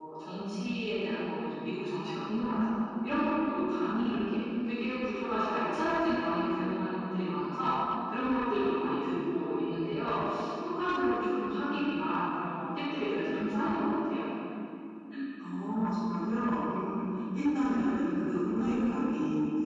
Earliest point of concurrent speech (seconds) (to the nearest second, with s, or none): none